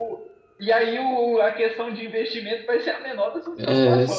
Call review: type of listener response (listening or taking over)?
taking over